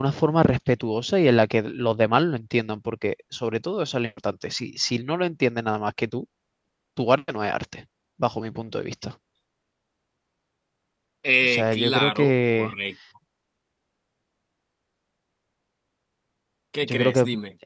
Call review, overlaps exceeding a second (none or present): present